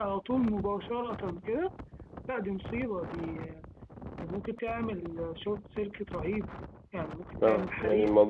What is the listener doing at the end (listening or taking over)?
taking over